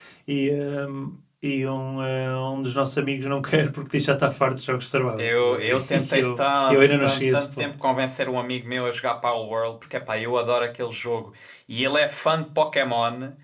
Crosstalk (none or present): present